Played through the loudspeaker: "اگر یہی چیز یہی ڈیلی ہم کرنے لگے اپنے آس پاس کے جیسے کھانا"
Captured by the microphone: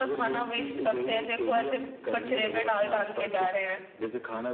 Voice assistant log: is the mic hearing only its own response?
No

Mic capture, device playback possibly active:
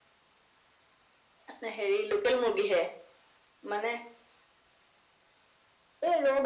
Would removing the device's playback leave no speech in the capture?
Yes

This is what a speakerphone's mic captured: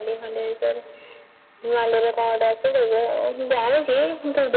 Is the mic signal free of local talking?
Yes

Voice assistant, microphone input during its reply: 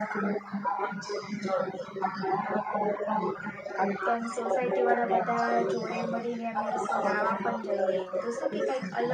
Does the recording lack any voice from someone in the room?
No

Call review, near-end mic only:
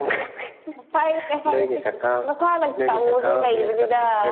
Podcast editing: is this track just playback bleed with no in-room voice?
Yes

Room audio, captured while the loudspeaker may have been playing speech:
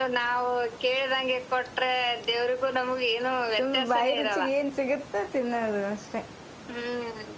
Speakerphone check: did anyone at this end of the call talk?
Yes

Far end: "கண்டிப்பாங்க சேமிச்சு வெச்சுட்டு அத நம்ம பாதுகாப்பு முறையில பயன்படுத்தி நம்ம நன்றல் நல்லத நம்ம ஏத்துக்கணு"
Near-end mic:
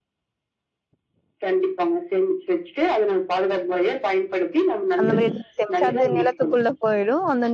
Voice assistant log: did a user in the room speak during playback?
Yes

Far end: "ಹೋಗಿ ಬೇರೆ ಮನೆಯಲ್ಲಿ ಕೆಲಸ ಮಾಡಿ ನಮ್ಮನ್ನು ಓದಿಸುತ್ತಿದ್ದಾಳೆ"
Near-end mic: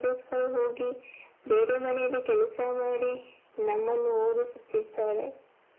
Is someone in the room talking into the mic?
No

